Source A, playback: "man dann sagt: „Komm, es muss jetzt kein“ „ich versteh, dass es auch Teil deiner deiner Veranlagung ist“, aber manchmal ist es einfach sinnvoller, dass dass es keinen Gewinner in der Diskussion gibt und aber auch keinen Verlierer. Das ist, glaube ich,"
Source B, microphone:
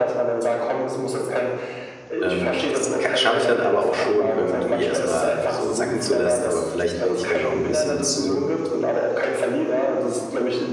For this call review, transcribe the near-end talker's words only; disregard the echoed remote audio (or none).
Ähm, das ka schaffe ich dann aber auch schon irgendwie erst mal so sacken zu lassen, aber vielleicht werde ich dann auch 'n bisschen zu,